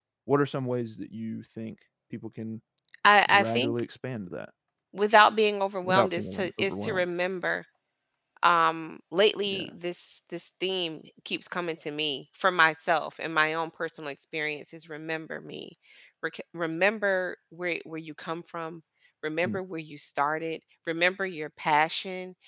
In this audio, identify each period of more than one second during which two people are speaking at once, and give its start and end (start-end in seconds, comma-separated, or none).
5.8-7.0